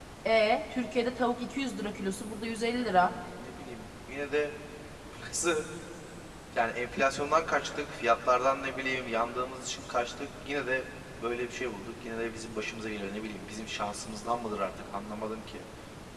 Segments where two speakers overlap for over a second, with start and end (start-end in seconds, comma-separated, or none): none